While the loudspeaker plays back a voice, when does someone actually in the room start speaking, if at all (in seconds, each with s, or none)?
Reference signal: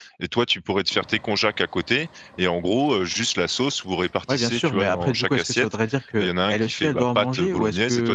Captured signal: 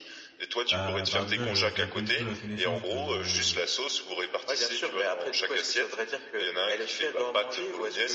0.7 s